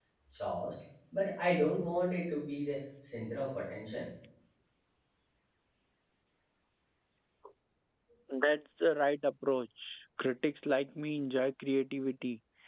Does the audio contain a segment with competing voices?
No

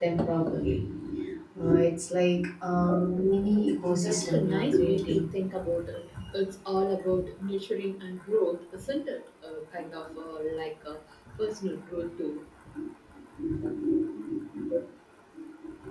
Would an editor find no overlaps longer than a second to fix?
No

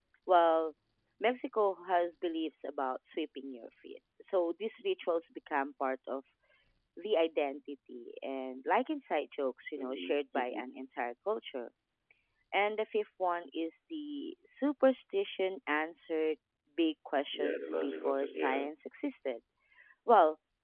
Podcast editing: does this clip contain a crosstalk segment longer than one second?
Yes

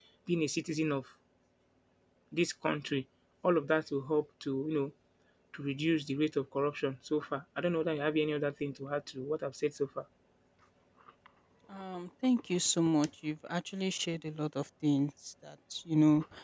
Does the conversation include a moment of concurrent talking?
No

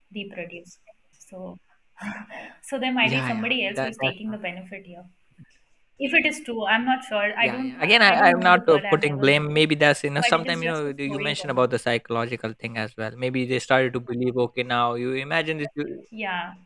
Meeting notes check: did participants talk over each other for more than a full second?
Yes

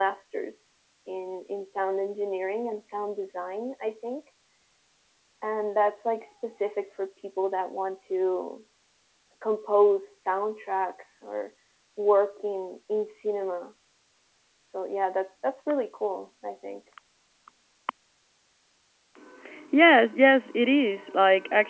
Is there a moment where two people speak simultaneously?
No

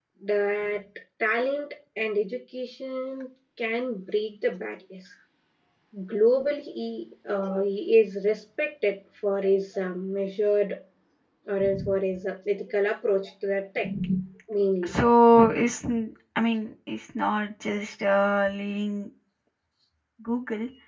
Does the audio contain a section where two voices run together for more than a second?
No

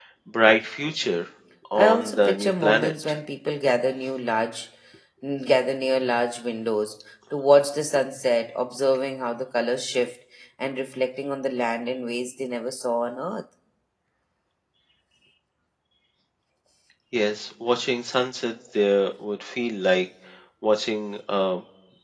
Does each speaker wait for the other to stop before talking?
No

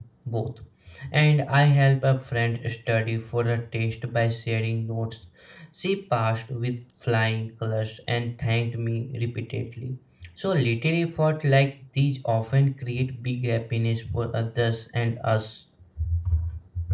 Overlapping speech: No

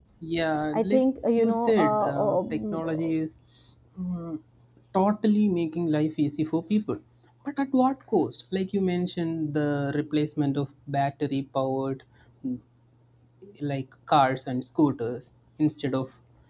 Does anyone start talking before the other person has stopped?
Yes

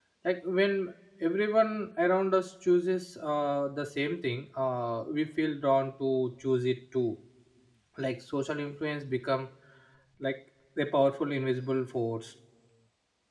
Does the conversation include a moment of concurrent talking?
No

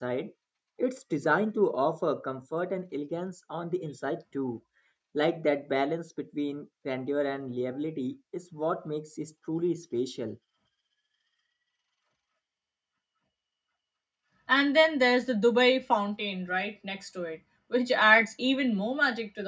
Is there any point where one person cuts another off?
No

